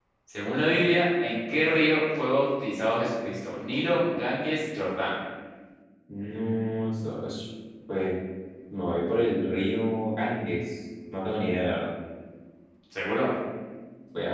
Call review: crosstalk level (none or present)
none